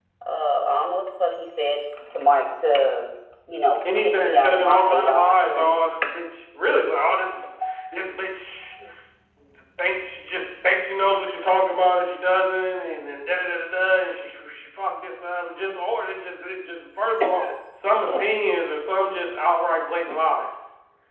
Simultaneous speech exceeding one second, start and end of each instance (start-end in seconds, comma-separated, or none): 3.8-5.8